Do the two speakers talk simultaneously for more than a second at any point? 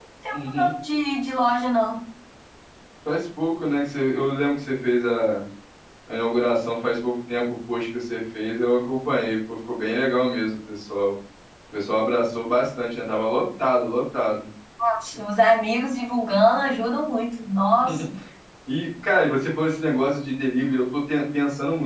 No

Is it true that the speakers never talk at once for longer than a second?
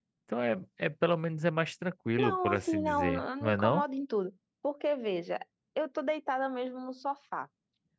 No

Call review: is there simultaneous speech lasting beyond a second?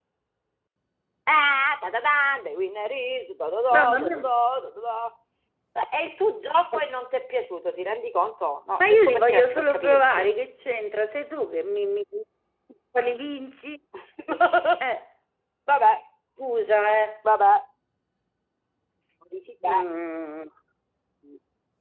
Yes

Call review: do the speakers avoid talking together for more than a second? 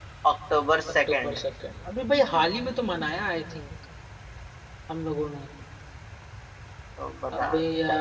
Yes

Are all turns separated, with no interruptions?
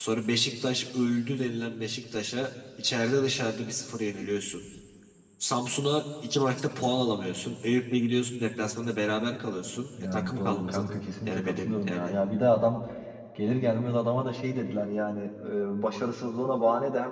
No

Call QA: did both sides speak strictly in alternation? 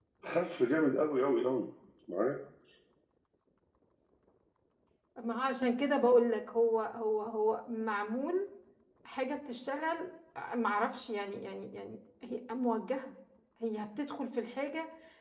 Yes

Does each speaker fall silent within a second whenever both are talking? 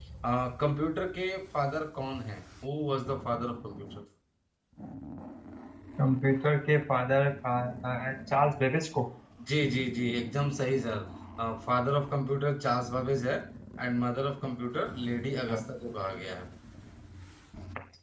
Yes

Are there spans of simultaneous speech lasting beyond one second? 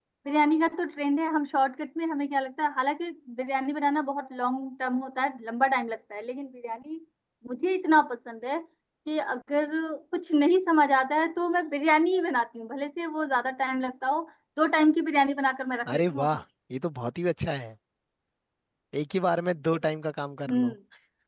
No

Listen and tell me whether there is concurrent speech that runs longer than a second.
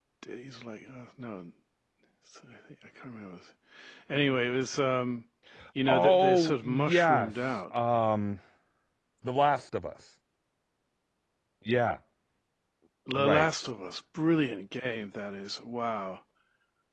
Yes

